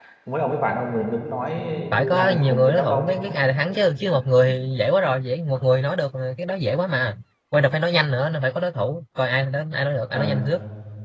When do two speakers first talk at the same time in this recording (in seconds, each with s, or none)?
1.9 s